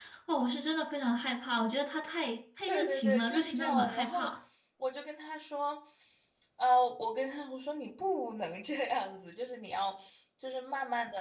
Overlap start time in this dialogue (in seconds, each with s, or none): 2.7 s